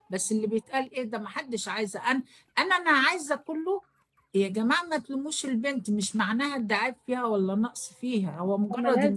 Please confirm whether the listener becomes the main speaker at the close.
No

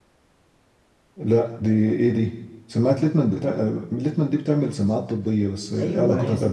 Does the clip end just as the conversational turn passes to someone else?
Yes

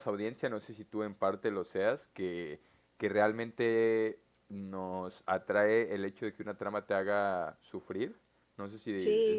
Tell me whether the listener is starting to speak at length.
No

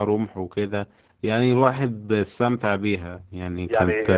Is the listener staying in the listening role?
No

